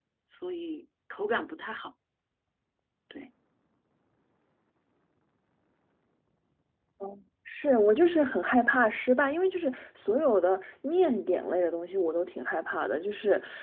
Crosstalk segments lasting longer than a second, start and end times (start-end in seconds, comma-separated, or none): none